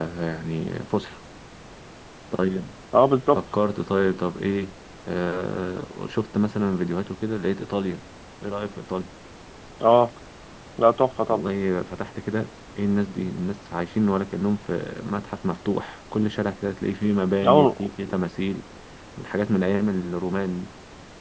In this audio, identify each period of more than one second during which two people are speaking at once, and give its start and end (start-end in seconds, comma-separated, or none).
none